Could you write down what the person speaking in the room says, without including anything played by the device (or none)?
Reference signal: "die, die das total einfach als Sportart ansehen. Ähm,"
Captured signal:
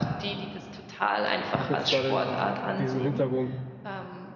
habe jetzt zwar den, diesen Hintergrund